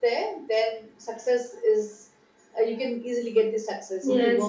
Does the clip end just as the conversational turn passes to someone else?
Yes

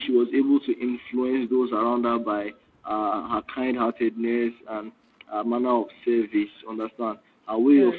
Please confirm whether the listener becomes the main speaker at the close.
No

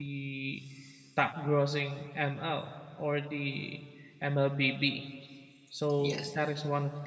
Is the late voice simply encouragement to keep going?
Yes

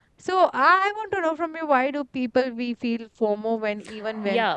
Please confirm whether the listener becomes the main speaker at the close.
Yes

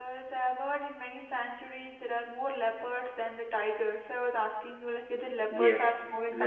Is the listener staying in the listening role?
No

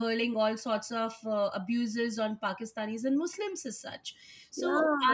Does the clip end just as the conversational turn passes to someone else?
No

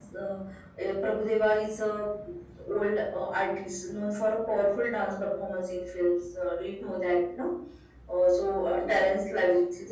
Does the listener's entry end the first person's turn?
No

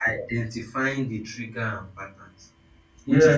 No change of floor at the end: No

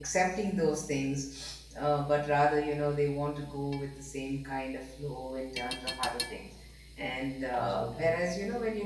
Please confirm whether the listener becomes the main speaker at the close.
No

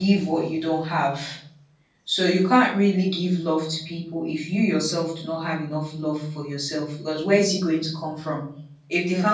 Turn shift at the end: No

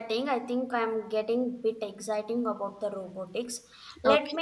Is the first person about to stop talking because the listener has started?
No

